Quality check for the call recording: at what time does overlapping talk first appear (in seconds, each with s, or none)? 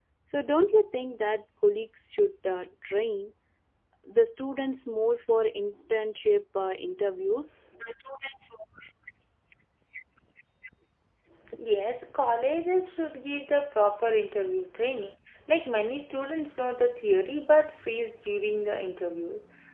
none